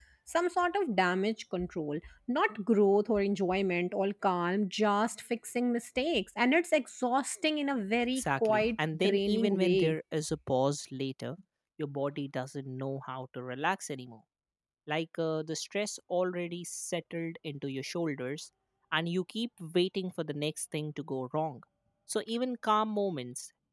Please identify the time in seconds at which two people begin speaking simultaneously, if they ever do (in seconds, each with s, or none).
8.2 s